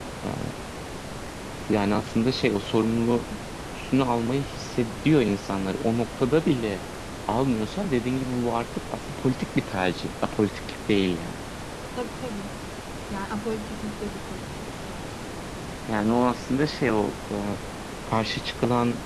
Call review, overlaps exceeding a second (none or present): none